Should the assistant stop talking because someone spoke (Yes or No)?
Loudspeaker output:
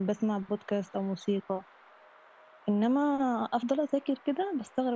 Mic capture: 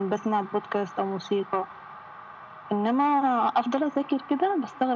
No